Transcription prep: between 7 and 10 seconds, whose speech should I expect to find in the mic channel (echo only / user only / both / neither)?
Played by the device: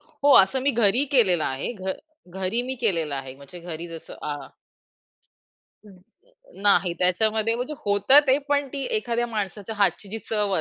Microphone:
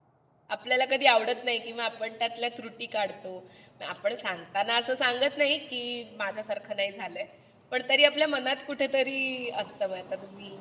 user only